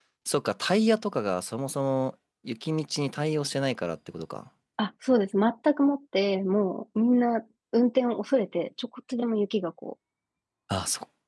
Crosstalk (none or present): none